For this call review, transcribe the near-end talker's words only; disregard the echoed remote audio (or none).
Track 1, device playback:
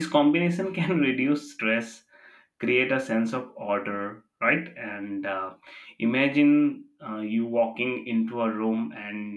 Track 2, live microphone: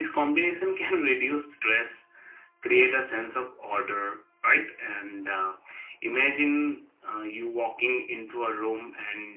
none